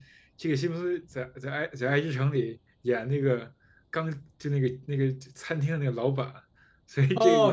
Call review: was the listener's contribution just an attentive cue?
No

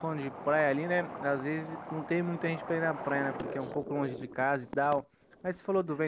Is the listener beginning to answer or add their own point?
No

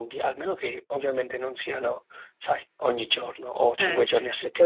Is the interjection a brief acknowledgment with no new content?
No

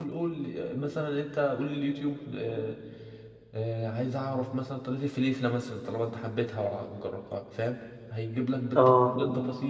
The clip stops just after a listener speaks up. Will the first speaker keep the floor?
Yes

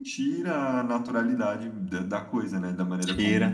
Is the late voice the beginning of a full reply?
Yes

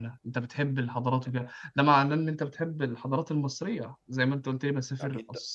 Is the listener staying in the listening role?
No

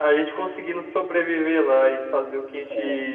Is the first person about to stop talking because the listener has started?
No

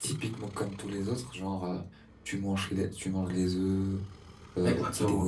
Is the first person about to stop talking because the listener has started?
Yes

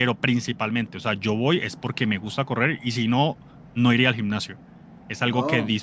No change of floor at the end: Yes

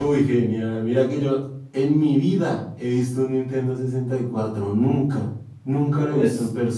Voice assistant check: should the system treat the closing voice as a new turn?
Yes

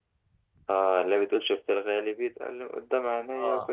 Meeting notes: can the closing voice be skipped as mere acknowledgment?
No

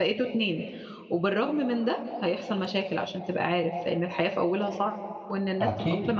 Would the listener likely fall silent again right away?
Yes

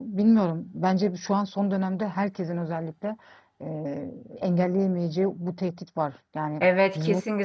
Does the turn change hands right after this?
Yes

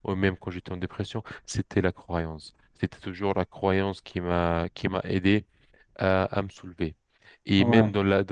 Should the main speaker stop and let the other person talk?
No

